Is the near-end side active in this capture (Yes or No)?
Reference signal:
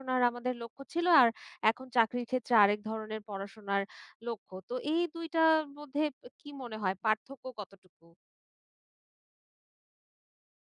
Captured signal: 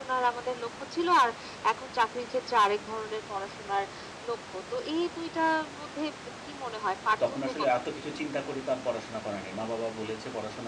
Yes